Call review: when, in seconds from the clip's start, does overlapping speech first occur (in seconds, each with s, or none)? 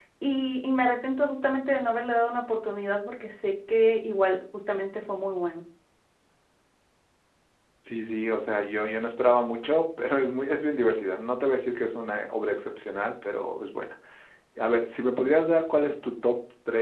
none